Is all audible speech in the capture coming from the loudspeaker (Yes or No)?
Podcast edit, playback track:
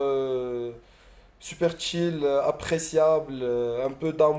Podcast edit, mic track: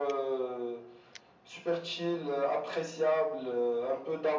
Yes